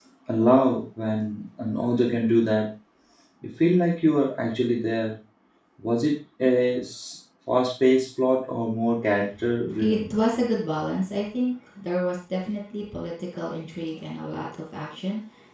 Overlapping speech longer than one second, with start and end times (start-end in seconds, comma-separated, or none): none